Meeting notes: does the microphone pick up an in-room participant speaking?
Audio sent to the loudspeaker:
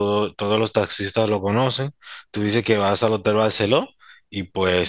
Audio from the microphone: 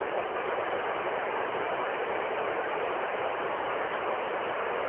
No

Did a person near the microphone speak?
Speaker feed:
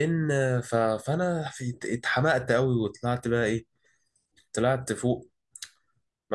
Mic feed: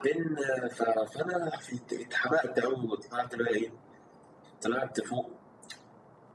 No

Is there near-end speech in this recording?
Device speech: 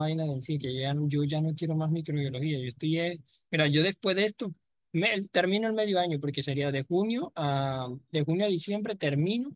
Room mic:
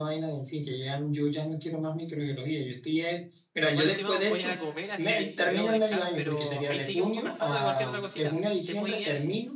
Yes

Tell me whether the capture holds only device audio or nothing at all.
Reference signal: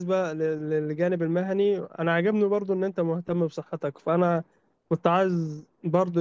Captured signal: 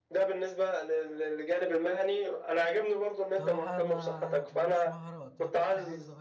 No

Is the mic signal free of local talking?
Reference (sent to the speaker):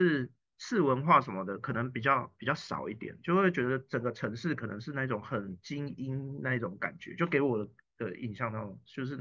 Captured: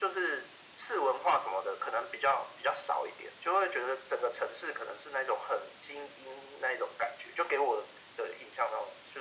Yes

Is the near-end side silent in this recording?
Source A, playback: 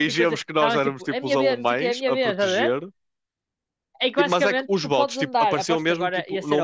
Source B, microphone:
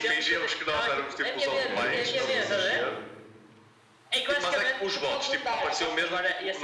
No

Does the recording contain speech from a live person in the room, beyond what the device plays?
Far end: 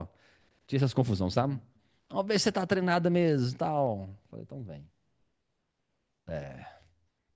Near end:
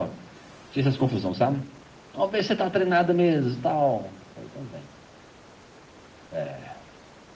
No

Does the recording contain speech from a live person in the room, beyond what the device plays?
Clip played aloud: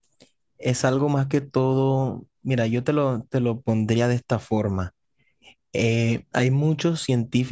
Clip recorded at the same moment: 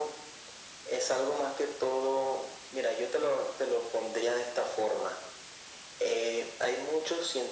No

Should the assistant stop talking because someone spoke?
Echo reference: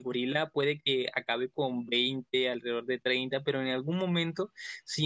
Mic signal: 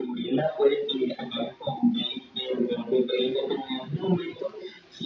No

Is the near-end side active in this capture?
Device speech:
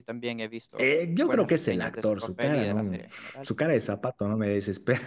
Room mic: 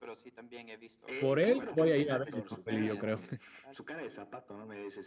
Yes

